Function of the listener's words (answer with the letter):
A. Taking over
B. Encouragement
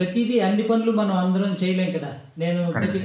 B